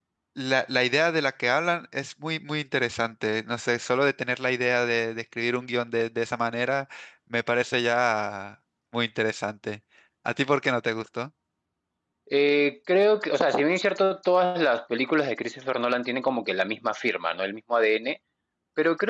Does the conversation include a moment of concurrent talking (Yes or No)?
No